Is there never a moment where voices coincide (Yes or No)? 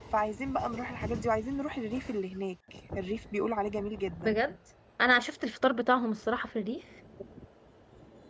Yes